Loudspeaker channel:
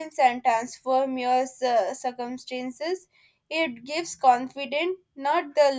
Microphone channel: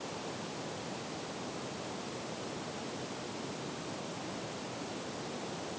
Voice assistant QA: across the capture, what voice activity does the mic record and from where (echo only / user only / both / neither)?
neither